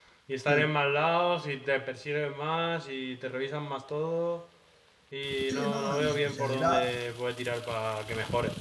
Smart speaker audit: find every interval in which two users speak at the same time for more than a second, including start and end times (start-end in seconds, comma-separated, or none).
5.5-6.8